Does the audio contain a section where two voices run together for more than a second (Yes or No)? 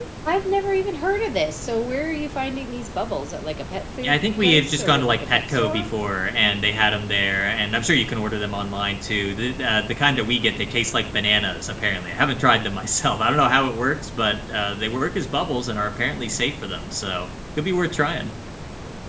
Yes